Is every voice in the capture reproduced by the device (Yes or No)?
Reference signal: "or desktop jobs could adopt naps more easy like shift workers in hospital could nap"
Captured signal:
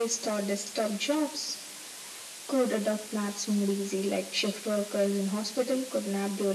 Yes